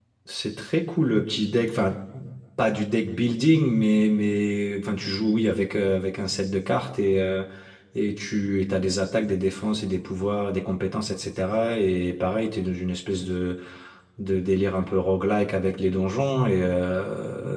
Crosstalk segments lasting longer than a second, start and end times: none

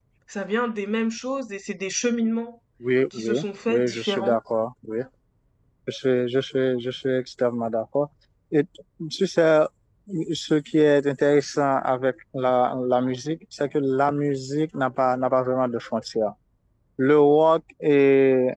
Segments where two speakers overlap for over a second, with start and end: 3.1-4.4

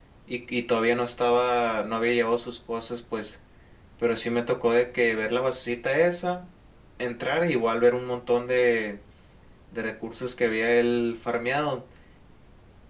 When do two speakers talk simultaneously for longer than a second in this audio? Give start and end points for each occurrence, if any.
none

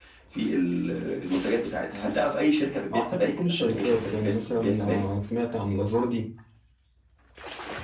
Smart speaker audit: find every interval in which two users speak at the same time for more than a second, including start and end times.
2.9-5.0

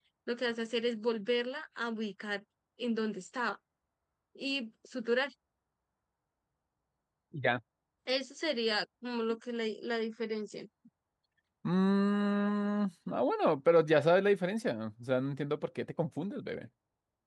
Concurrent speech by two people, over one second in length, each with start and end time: none

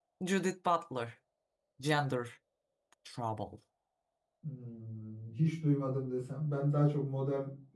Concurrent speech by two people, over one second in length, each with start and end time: none

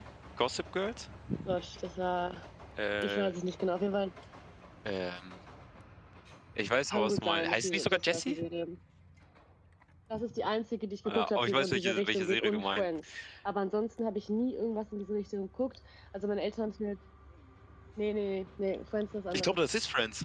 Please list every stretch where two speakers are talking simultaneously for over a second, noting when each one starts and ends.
6.9-8.4, 11.1-12.9

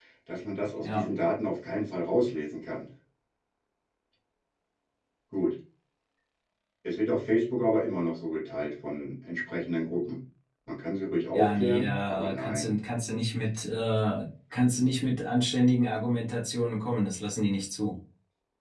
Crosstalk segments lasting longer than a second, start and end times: 11.3-12.7

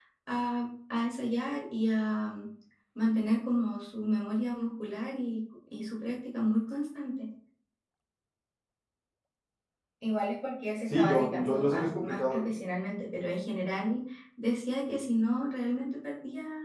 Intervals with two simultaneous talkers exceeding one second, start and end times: 10.9-12.4

